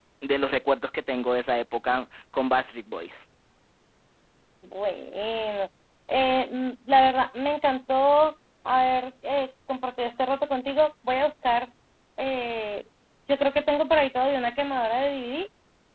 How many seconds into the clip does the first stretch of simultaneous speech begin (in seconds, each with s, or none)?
none